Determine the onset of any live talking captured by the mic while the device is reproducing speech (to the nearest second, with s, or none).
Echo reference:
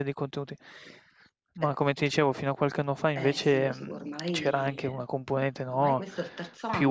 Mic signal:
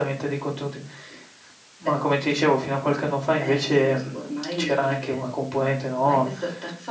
none